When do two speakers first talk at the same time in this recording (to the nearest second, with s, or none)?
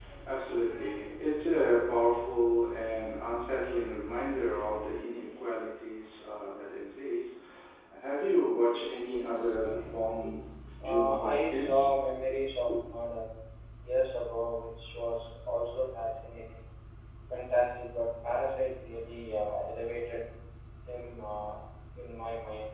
11 s